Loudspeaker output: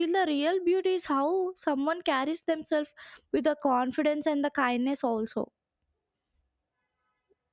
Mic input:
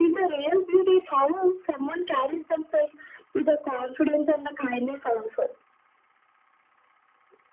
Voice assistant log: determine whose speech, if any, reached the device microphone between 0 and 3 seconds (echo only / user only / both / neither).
echo only